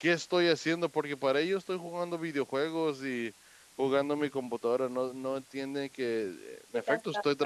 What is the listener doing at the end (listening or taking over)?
listening